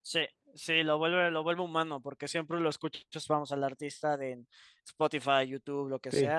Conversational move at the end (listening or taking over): taking over